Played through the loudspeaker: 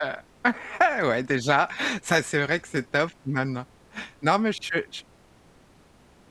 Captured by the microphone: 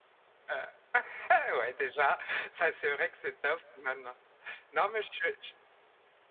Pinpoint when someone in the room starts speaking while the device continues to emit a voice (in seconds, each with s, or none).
none